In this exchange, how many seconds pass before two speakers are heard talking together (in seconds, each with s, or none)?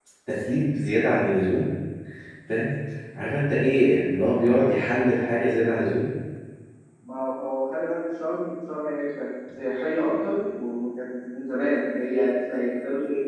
none